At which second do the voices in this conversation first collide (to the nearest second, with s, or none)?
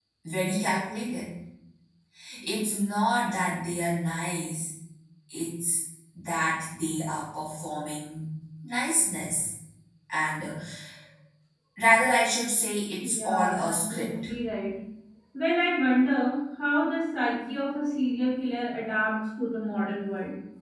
13 s